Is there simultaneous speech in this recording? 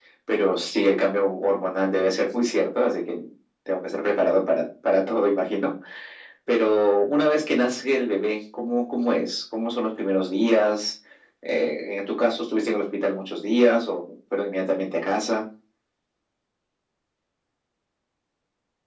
No

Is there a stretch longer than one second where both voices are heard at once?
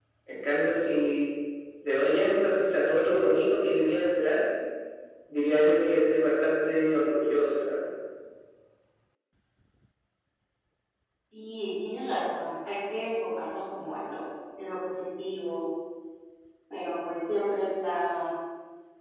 No

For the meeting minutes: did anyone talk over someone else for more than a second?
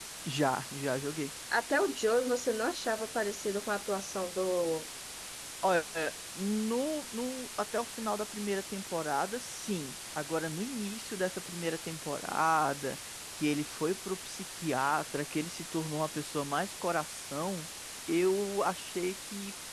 No

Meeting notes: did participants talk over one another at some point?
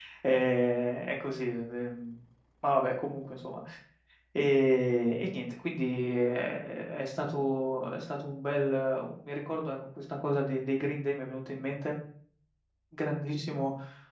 No

